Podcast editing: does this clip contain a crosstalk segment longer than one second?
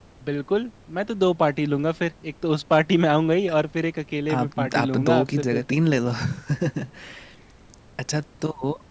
Yes, from 4.3 s

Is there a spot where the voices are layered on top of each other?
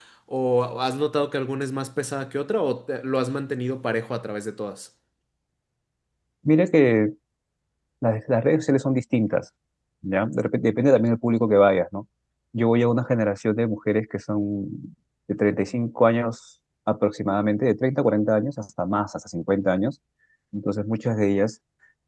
No

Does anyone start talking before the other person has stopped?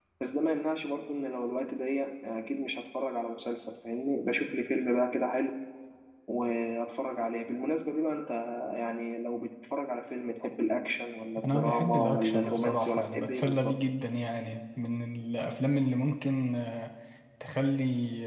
Yes, from 11.4 s

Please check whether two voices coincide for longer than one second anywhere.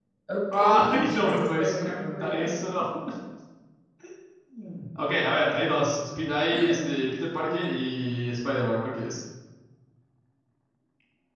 Yes, from 0.5 s

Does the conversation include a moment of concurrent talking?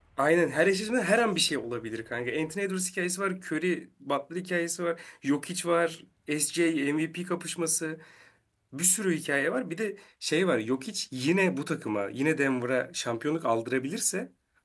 No

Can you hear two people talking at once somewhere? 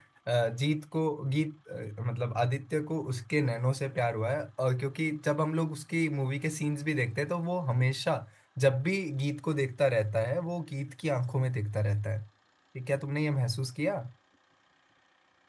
No

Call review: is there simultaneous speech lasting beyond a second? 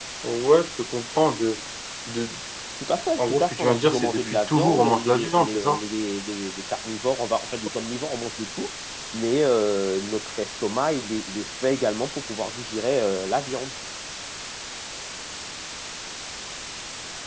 Yes, from 3.2 s

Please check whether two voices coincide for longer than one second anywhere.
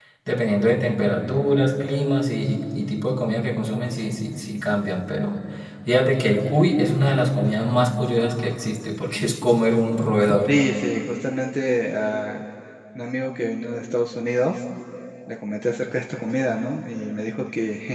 No

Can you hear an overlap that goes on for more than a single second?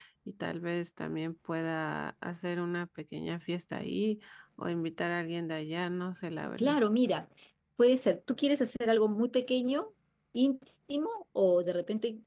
No

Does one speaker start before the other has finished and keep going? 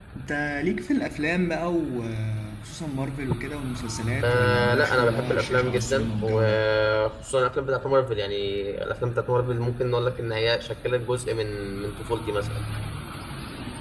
Yes, from 4.2 s

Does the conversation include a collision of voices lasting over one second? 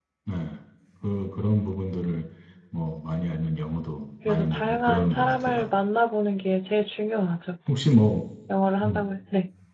Yes, from 4.2 s

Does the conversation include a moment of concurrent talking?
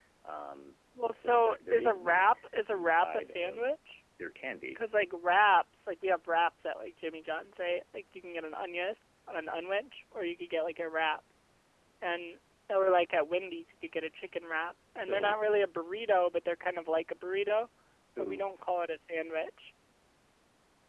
Yes, from 1.1 s

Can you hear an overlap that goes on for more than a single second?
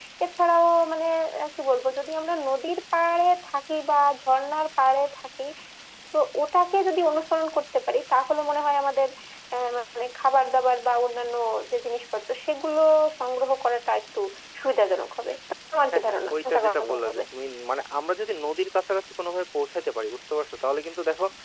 Yes, from 15.9 s

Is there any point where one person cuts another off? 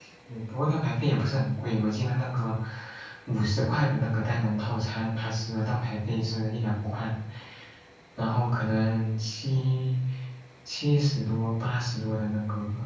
No

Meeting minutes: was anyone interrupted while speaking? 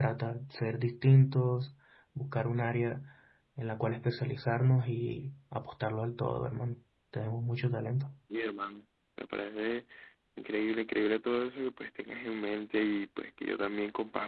No

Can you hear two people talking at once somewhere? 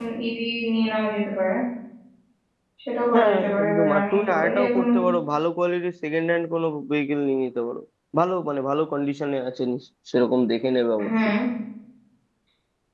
Yes, from 3.1 s

